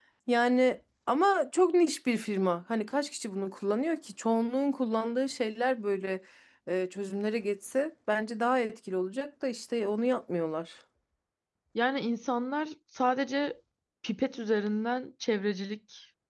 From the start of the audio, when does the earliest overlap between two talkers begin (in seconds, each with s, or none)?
none